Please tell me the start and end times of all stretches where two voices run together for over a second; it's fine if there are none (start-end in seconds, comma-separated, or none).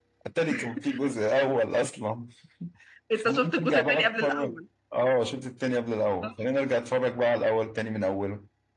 3.1-4.5